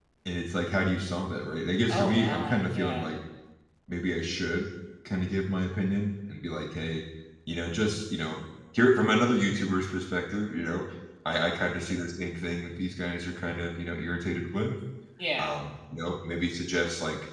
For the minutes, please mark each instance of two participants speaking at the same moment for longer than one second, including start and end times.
1.9-3.1

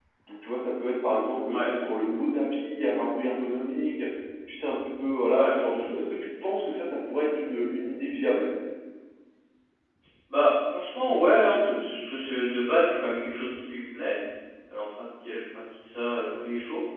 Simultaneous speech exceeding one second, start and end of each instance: none

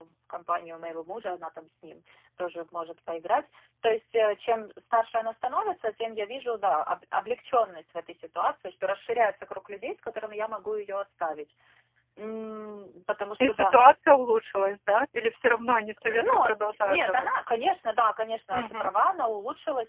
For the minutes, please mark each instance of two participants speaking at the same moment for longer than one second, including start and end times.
16.1-17.3

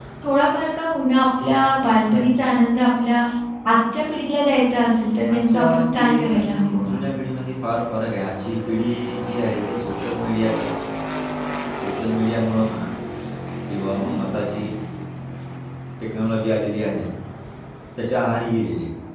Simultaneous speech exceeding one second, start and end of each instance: 5.3-7.0

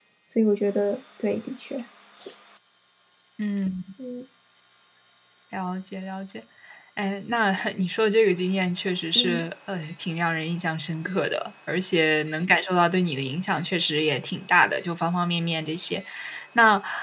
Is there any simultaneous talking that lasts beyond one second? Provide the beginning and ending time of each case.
none

